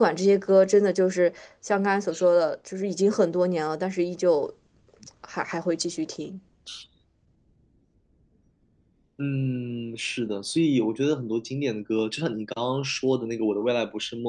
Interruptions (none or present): none